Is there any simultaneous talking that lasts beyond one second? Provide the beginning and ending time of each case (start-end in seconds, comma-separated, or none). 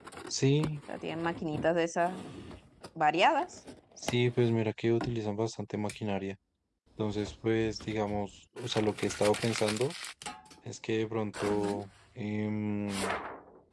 none